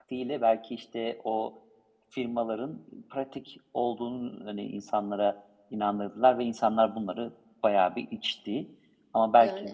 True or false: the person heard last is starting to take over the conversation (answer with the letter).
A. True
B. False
B